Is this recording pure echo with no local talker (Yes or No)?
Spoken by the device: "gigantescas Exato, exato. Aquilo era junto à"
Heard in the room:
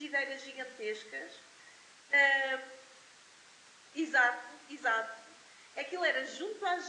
Yes